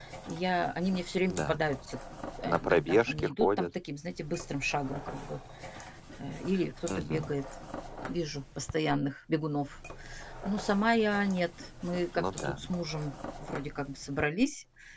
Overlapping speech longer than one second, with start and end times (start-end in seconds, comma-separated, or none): 2.5-3.7